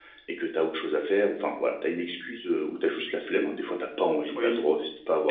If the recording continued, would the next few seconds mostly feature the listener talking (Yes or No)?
Yes